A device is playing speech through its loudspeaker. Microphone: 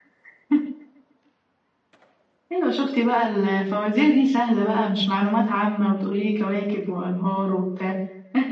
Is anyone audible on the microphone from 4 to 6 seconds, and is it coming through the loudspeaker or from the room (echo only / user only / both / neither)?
echo only